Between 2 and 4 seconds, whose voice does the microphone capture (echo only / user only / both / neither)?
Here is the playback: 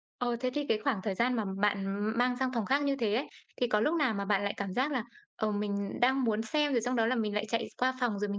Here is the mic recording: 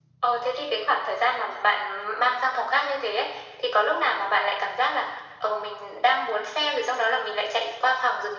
echo only